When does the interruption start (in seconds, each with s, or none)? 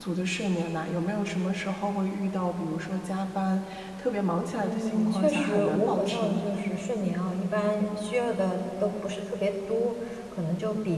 4.6 s